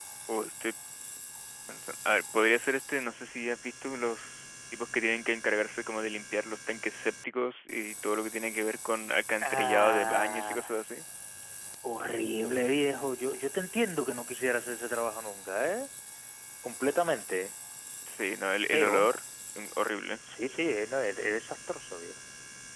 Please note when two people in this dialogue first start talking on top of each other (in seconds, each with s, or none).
9.4 s